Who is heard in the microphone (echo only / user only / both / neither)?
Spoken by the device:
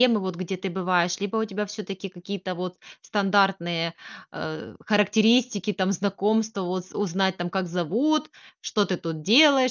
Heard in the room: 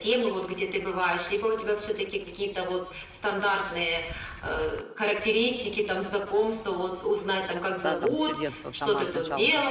both